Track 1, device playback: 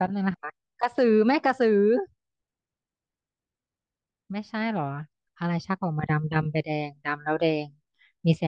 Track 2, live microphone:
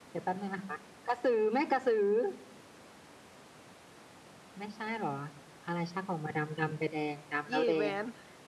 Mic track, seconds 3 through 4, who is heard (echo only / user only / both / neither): neither